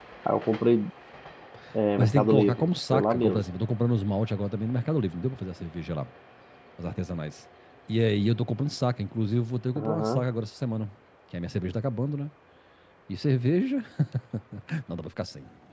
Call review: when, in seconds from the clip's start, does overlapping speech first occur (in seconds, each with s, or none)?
2.0 s